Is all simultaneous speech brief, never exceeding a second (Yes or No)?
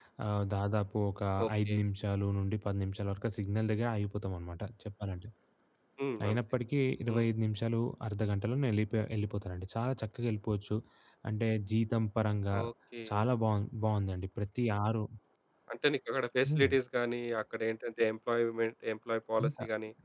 Yes